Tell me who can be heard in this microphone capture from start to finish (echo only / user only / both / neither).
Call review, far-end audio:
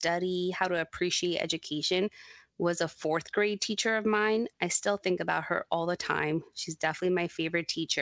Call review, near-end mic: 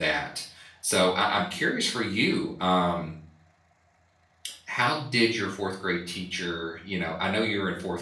user only